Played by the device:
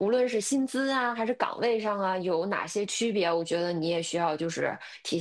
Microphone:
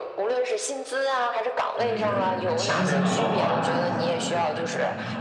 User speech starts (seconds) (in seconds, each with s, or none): 1.7 s